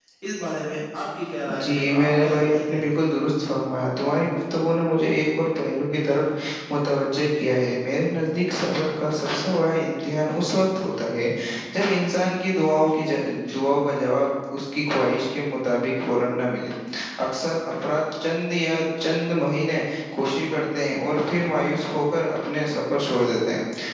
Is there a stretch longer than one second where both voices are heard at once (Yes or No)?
Yes